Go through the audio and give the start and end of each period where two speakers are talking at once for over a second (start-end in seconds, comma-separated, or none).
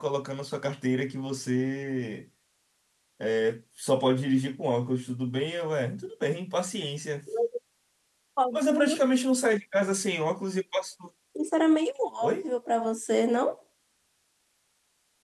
none